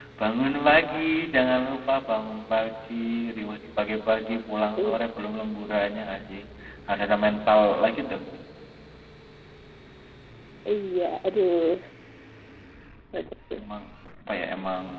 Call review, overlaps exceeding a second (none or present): none